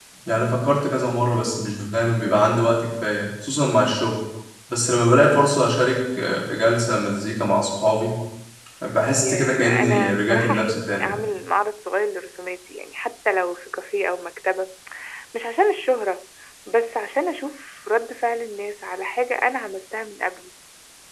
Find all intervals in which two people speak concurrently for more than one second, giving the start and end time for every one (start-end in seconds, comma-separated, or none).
9.2-11.2